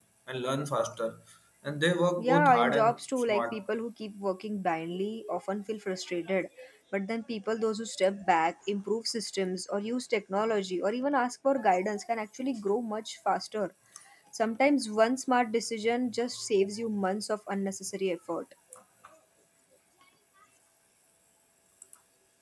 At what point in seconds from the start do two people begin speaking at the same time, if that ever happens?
2.2 s

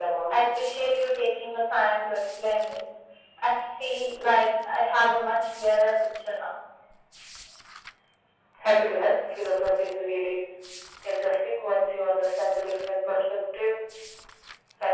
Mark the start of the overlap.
none

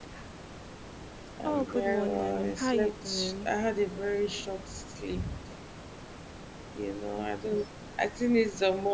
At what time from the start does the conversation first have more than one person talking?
1.4 s

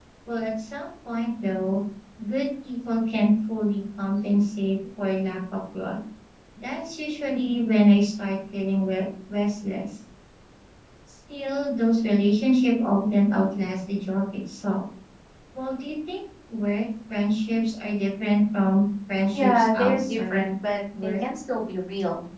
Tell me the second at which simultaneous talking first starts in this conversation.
19.3 s

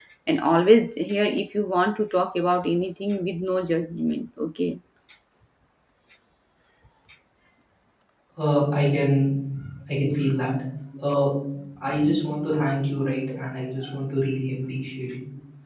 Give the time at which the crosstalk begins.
none

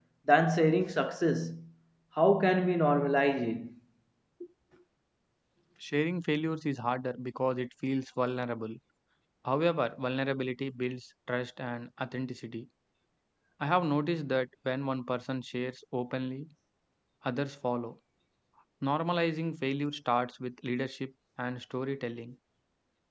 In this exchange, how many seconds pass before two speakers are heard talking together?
none

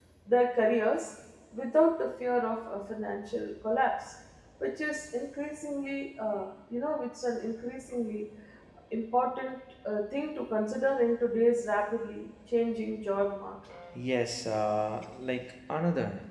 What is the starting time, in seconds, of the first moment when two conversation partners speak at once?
none

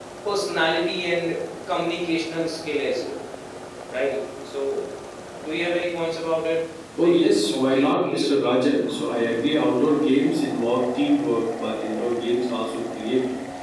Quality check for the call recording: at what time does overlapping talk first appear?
7.0 s

